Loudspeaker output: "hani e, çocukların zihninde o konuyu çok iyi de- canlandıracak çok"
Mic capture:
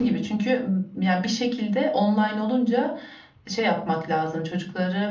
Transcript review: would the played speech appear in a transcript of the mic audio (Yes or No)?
No